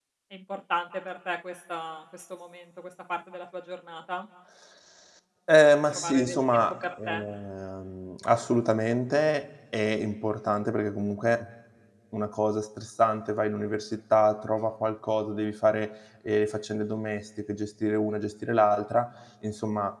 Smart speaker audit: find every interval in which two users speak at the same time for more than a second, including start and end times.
5.9-7.2

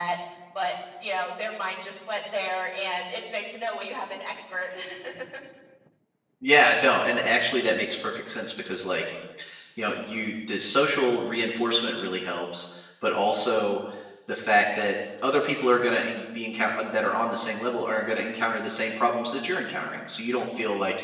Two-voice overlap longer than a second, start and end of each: none

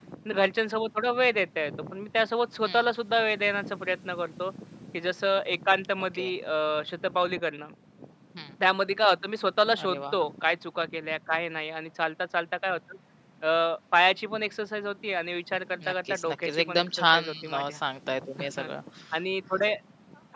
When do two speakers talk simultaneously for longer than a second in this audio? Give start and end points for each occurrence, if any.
15.9-17.8

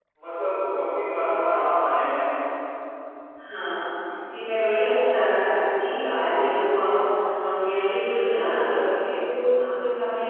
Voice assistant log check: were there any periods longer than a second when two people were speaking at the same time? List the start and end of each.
none

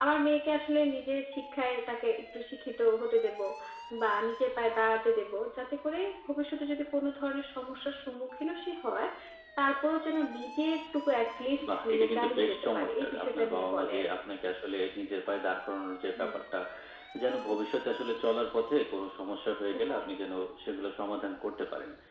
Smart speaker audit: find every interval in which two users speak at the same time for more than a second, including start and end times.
11.8-14.1

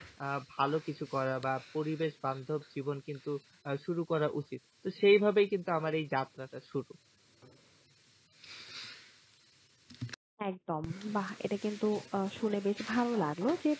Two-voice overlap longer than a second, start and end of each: none

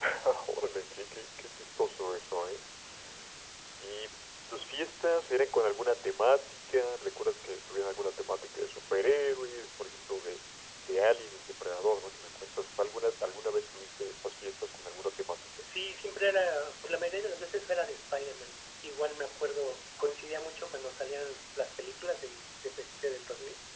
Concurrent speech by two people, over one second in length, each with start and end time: none

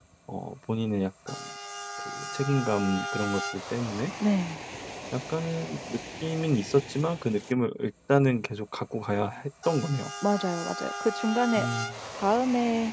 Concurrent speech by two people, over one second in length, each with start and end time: none

